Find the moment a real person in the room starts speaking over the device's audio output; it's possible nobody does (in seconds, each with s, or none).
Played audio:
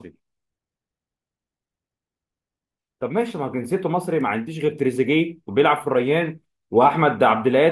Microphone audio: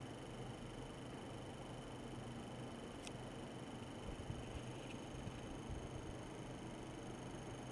none